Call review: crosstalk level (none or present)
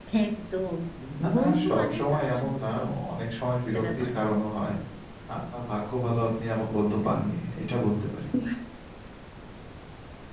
present